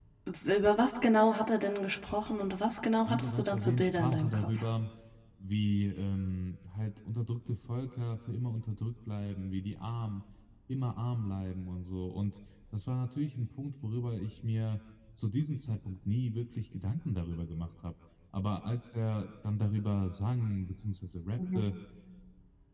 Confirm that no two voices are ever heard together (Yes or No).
No